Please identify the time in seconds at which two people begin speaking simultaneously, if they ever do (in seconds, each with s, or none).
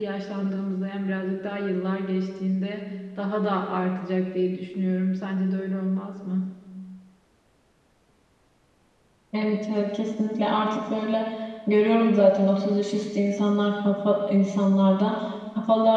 none